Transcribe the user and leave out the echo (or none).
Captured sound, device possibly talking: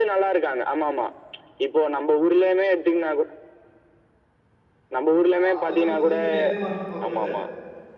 ஆ அது எல்லாமே சின்ன சின்ன எத்தன மந்த்து கோர்ஸ் அது